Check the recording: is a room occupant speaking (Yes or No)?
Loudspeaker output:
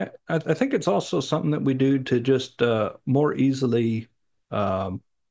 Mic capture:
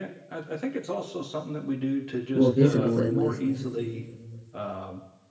Yes